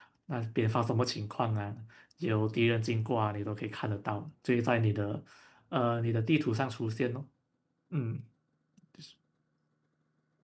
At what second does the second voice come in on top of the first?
none

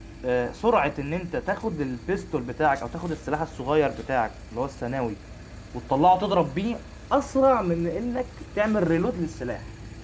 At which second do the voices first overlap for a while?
none

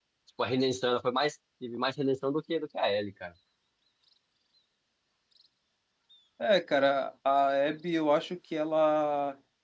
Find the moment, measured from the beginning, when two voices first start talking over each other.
none

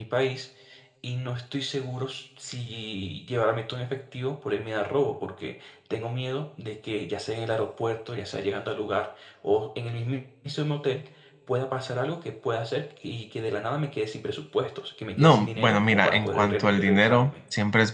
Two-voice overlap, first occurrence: 15.1 s

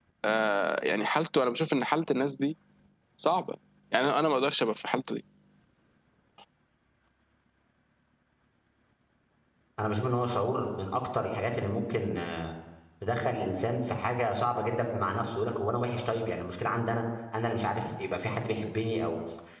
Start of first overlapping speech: none

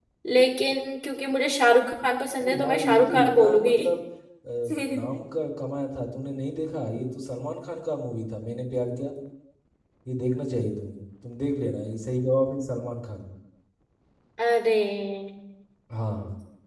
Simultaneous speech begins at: 2.4 s

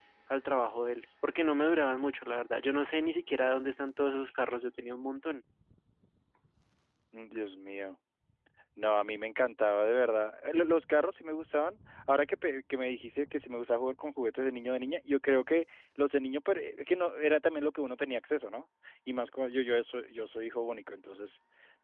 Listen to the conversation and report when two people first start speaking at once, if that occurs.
none

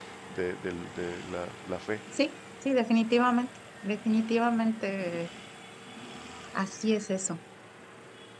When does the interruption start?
none

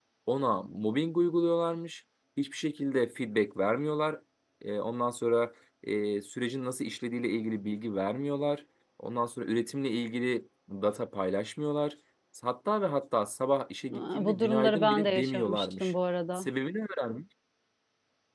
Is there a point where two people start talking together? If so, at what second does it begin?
13.9 s

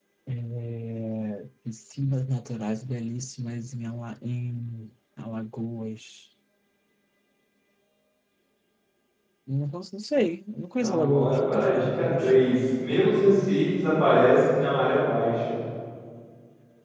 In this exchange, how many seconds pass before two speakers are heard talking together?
10.8 s

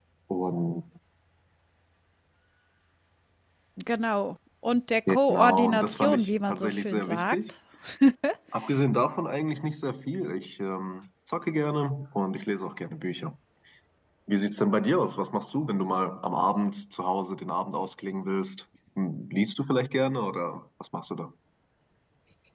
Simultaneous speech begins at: 5.1 s

